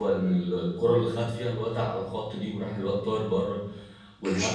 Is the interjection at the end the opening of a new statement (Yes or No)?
No